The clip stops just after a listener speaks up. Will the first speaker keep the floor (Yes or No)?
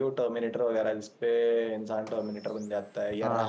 No